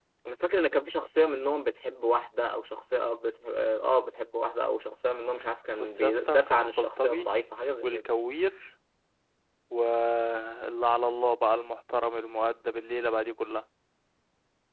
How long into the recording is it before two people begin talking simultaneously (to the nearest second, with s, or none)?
6 s